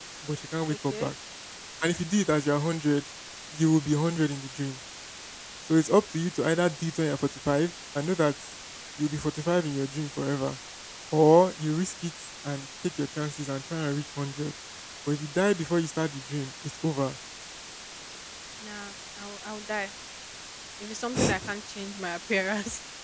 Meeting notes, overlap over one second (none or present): none